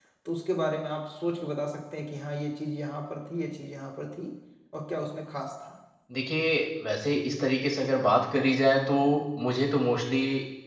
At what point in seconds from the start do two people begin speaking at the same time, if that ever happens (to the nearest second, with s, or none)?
none